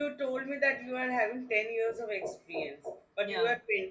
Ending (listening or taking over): listening